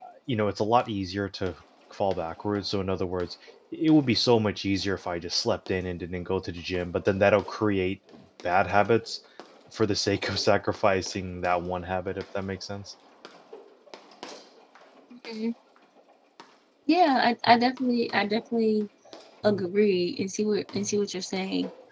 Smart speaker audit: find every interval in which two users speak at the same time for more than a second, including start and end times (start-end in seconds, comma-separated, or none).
none